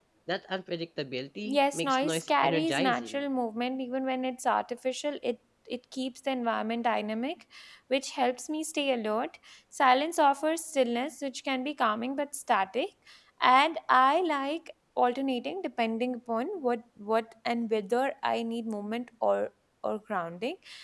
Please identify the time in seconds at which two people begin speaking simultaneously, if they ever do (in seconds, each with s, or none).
1.4 s